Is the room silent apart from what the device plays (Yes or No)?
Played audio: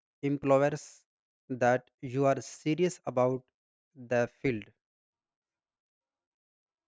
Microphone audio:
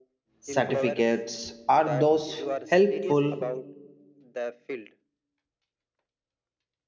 No